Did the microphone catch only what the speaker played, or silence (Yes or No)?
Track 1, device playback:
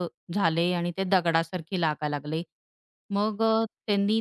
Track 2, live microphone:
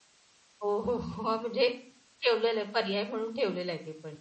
No